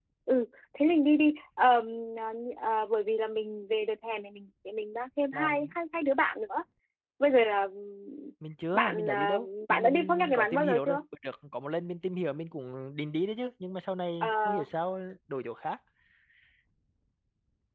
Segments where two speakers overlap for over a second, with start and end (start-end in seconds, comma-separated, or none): 8.7-11.0